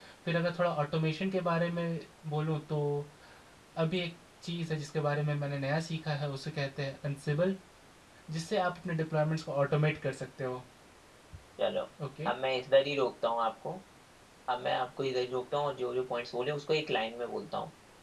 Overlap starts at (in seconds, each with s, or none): none